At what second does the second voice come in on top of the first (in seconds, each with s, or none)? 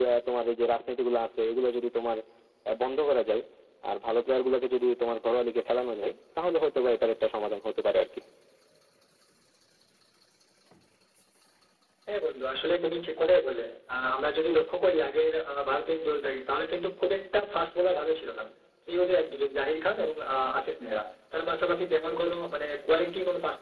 none